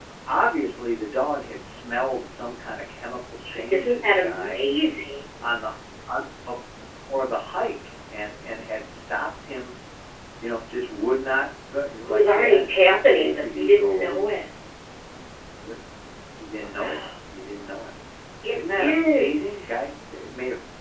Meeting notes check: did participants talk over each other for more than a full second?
Yes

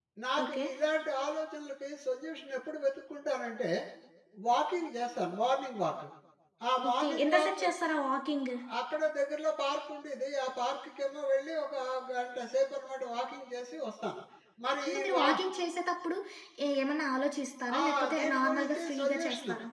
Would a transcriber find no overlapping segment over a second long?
No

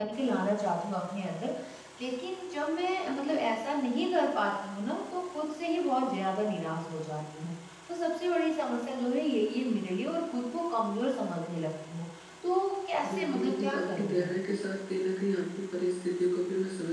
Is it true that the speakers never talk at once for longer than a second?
No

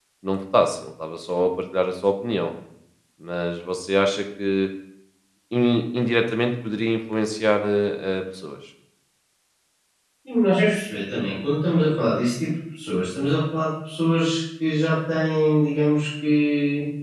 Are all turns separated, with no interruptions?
Yes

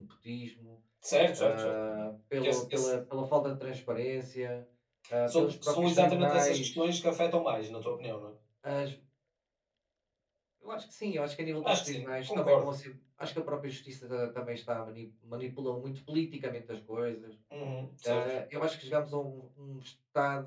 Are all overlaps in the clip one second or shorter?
No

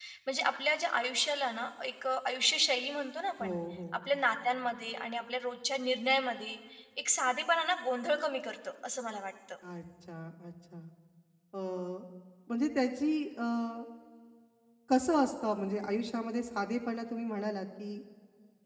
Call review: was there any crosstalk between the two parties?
No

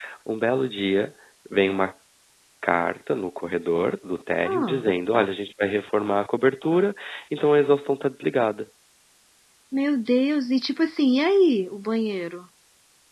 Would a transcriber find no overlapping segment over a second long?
Yes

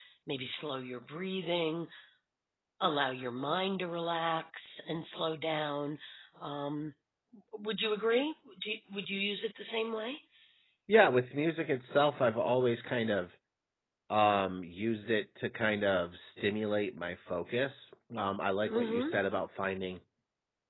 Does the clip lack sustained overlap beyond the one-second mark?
Yes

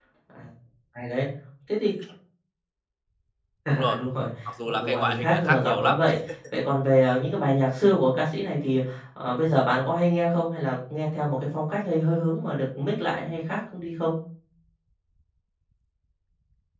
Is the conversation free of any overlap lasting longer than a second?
No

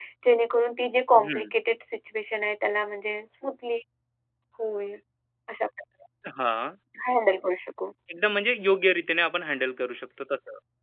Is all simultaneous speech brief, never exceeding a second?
Yes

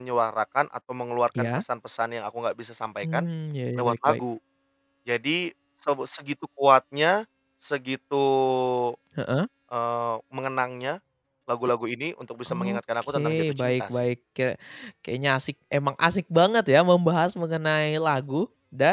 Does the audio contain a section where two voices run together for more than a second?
Yes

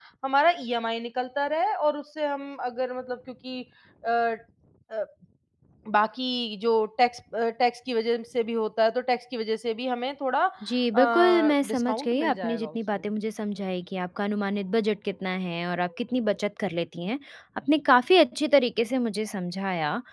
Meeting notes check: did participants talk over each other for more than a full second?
Yes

